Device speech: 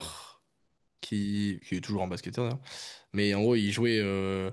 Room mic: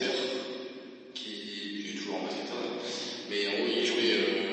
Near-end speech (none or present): none